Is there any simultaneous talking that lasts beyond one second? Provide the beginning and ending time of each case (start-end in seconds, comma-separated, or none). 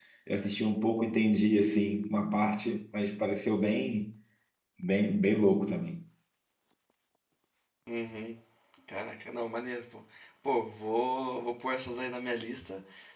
none